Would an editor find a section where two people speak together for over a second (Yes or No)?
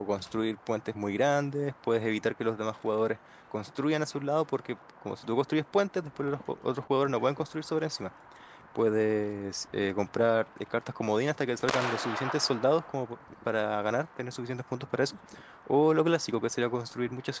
No